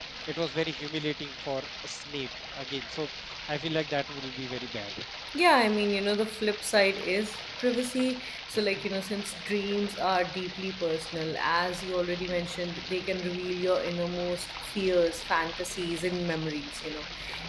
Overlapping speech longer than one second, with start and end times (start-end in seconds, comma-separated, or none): none